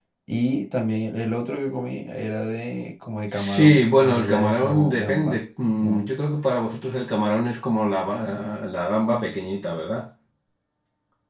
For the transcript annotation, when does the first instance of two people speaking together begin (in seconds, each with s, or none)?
3.3 s